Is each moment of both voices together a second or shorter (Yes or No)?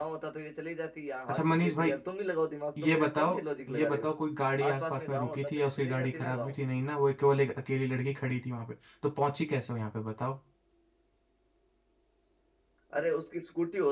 No